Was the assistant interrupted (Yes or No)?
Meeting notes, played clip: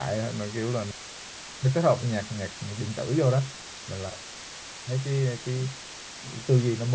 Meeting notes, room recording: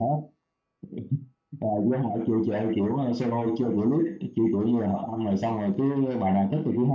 Yes